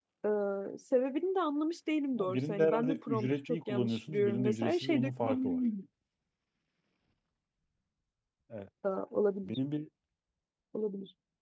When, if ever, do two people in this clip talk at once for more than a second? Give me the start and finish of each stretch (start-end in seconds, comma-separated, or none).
2.2-5.4